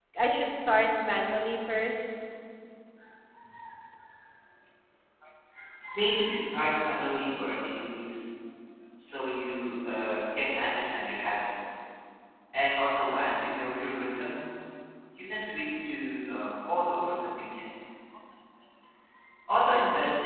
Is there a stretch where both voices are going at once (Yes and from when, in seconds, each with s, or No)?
No